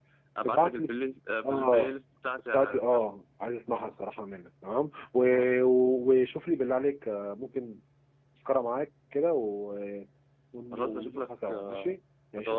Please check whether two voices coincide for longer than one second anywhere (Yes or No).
Yes